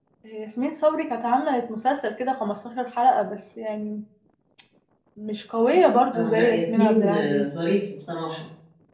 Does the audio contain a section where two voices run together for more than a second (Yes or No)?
Yes